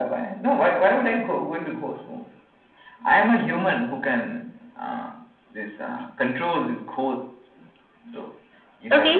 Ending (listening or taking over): taking over